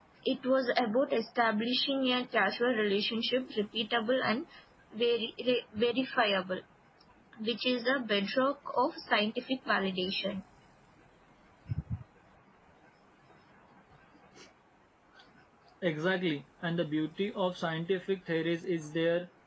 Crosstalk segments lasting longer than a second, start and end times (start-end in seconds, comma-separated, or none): none